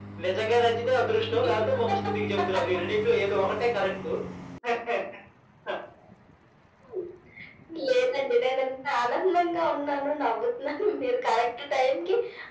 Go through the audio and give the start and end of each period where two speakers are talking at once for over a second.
none

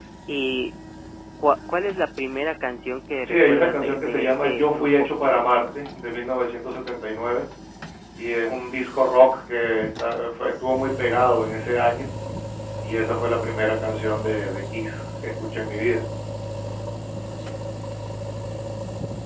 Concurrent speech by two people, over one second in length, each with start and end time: 3.2-5.3

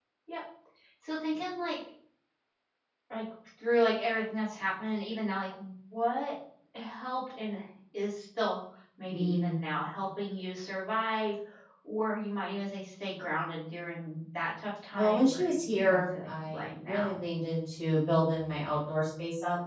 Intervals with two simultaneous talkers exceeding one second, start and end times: 14.9-17.2

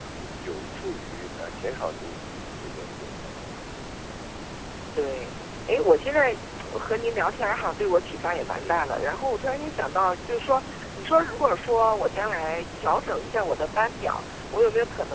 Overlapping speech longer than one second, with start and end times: none

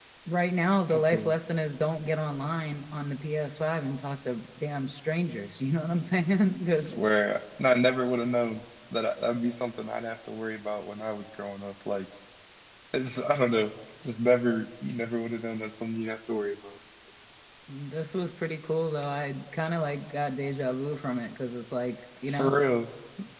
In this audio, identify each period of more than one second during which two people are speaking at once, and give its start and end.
none

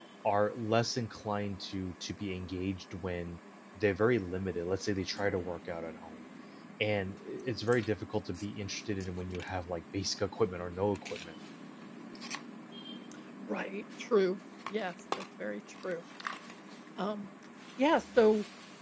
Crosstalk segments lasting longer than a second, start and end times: none

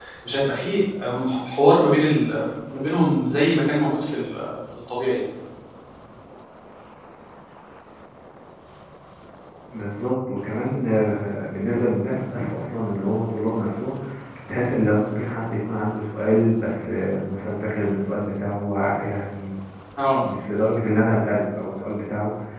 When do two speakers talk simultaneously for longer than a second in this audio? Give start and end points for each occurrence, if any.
none

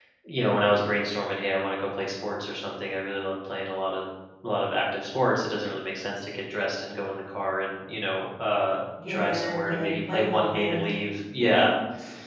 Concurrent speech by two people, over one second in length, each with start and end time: 9.1-10.8

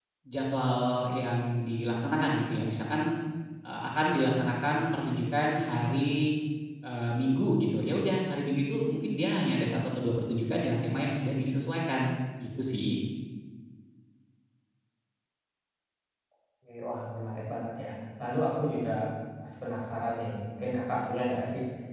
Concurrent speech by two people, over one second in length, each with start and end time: none

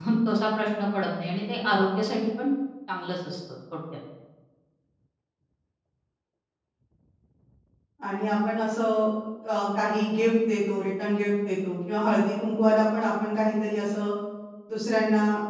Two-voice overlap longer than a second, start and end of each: none

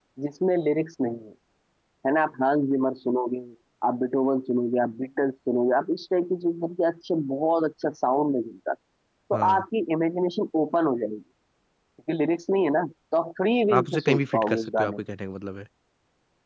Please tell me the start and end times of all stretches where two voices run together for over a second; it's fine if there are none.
13.8-15.0

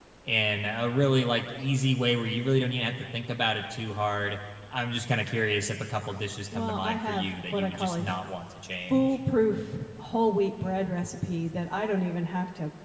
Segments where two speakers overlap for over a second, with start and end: 6.5-8.0

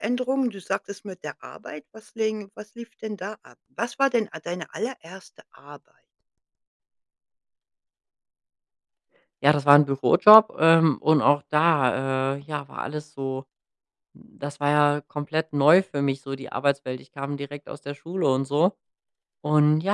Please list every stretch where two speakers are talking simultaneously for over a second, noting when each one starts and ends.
none

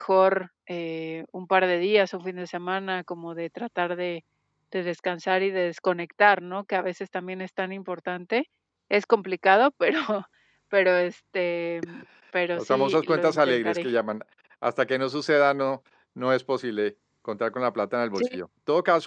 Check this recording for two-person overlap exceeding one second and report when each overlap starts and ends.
12.6-13.9

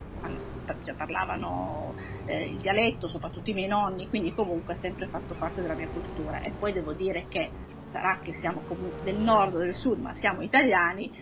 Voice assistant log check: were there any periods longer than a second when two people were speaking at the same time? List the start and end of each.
none

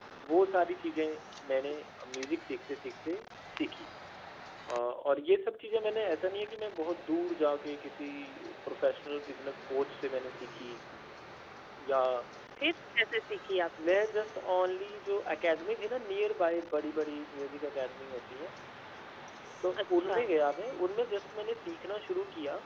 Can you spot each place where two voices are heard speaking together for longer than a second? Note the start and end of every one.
none

